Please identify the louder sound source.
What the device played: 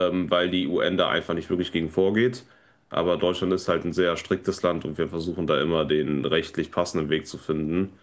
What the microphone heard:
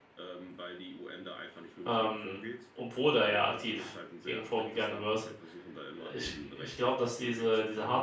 user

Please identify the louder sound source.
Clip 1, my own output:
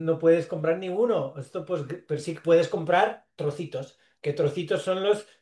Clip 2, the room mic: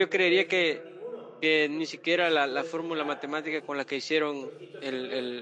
user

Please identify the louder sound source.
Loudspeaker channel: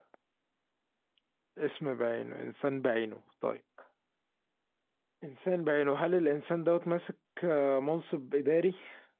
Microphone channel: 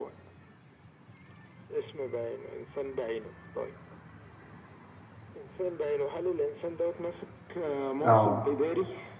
user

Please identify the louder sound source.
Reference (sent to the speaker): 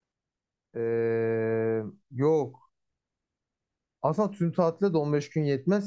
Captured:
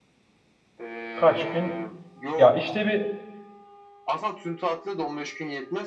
user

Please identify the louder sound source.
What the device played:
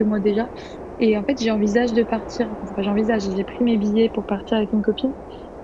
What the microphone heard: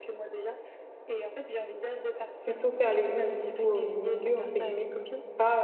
user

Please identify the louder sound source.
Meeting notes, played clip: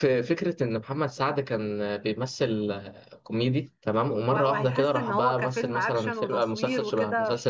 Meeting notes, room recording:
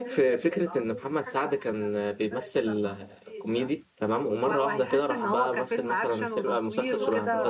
echo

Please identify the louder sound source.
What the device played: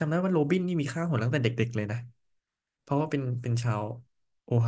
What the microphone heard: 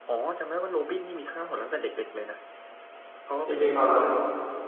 user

